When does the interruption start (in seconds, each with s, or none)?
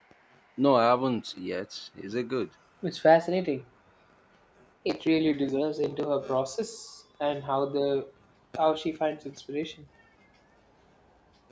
none